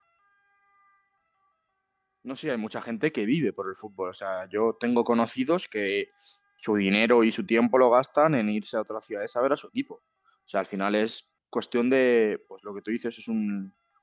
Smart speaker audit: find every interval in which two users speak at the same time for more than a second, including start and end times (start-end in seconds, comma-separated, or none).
none